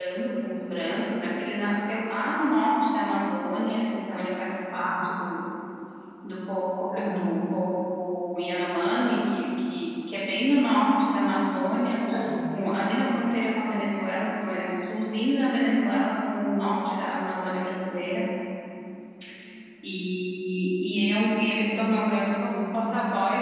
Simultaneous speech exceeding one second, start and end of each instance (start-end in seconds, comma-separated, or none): none